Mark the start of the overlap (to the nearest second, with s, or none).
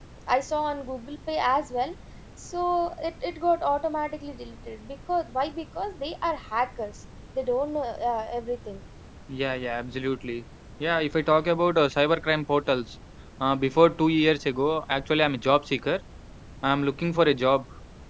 none